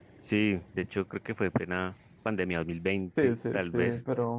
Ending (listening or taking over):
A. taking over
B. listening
A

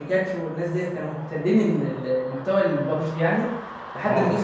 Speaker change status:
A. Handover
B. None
B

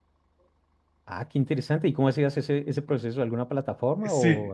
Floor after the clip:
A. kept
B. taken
B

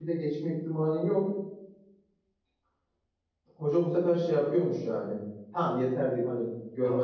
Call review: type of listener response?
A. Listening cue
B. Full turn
B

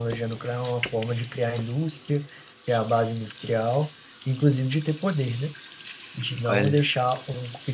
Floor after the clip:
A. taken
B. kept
B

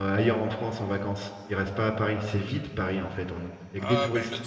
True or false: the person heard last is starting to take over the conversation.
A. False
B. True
B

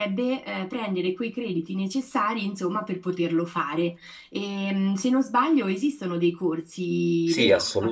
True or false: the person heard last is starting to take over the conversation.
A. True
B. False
A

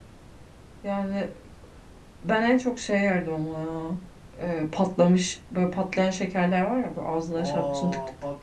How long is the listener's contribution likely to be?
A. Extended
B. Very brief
A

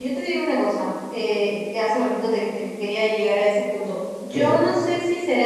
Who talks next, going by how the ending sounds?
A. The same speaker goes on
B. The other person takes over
A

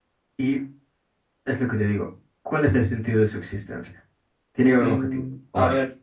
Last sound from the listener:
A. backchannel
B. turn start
B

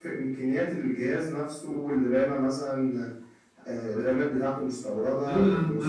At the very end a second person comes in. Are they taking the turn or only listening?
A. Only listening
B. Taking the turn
B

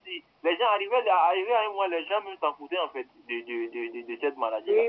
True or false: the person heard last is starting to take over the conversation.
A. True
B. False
A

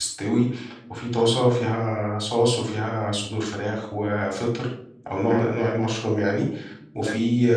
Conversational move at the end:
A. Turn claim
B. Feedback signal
B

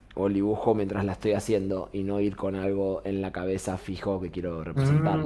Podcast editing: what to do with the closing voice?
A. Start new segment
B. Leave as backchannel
A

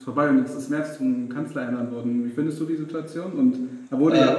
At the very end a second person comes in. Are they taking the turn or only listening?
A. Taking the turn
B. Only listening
B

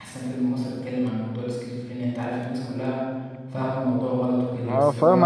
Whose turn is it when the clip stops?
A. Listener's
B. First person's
A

